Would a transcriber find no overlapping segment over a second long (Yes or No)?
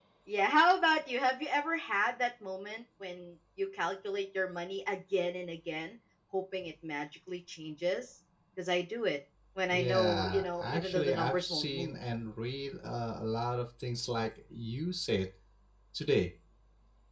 No